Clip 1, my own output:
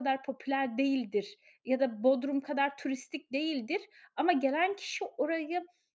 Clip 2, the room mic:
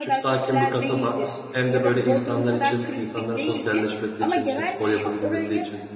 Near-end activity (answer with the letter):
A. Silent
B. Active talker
B